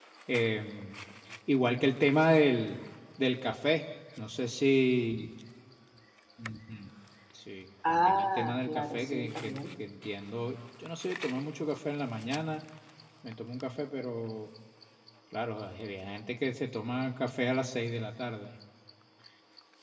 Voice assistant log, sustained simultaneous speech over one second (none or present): present